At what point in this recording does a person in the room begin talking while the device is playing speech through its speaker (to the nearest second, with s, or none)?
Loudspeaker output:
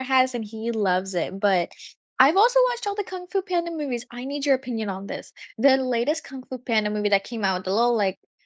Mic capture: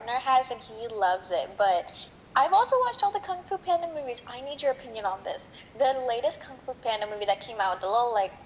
none